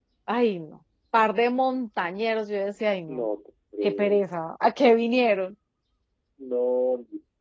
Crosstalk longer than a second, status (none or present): none